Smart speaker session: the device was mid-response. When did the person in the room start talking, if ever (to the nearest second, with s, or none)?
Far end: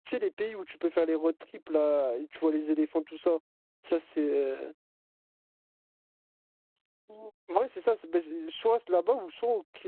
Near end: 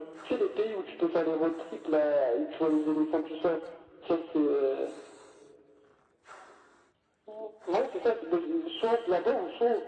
none